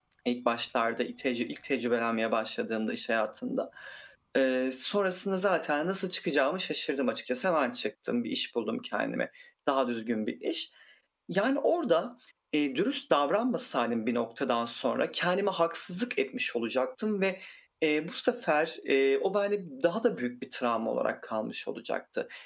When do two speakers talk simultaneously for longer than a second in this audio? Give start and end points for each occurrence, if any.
none

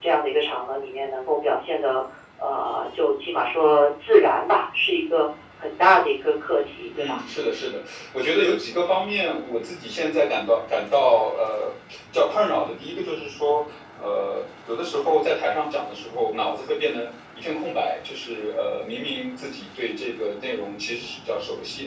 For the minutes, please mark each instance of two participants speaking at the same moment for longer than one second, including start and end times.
none

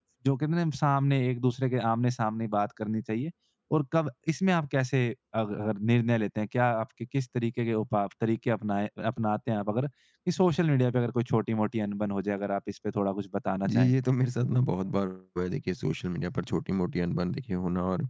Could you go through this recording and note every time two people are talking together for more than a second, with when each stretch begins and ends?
none

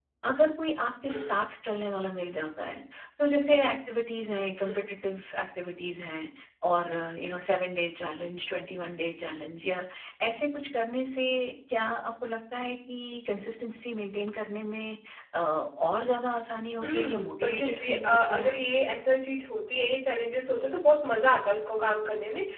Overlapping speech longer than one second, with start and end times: 16.8-18.6

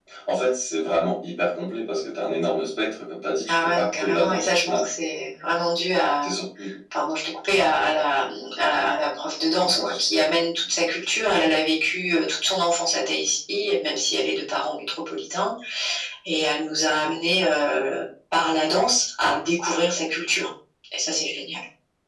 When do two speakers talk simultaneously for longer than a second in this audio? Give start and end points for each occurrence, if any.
3.5-4.9

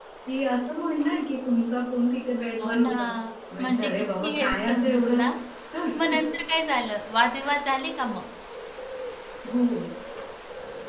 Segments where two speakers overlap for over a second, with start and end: 3.6-5.2

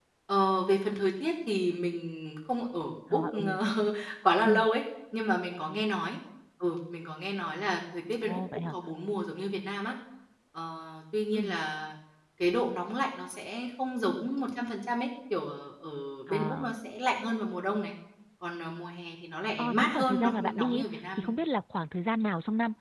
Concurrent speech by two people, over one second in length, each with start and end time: 19.6-21.3

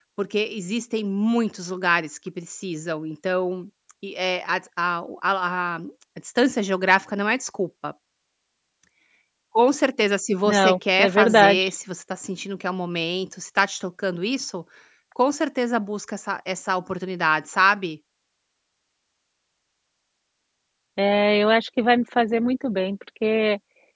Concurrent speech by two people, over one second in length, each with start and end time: 10.4-11.7

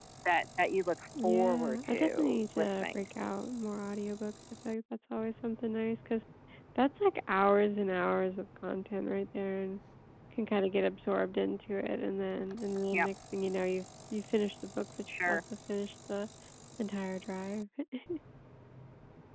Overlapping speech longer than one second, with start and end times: 1.2-3.0

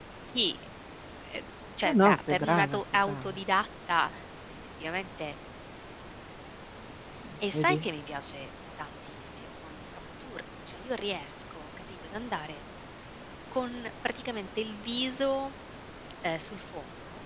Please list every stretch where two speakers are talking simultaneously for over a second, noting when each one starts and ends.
1.9-3.4

